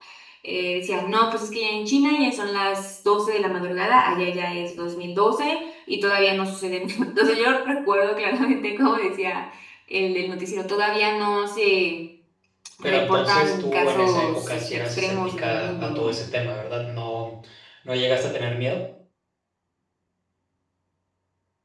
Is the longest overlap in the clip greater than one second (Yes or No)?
Yes